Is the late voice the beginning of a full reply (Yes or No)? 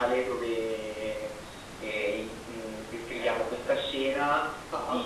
No